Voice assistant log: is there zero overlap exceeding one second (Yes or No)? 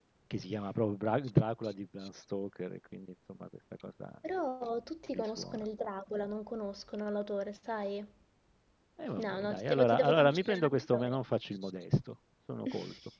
No